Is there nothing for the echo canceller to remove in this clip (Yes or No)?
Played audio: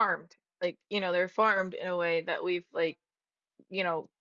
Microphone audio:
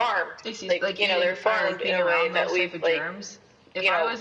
No